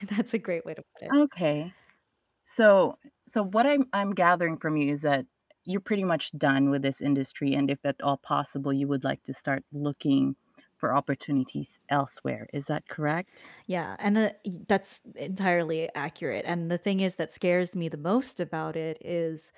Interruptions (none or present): none